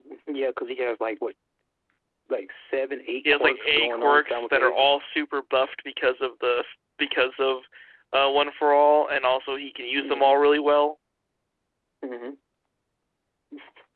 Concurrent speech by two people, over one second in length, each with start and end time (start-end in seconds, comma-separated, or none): 3.3-4.9